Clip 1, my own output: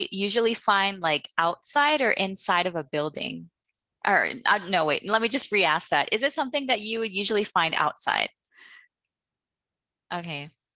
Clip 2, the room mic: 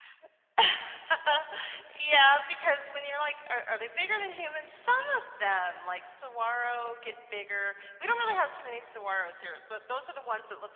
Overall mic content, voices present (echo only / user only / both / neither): user only